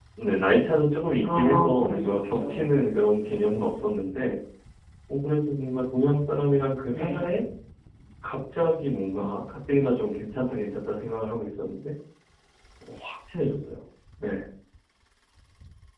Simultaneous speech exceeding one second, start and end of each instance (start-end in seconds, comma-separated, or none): 1.2-2.7